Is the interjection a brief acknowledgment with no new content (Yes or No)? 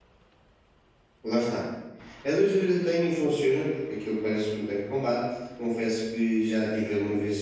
Yes